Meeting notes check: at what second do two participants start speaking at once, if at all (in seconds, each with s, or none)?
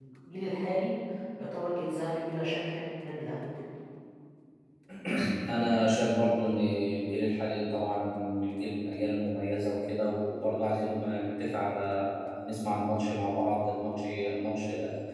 none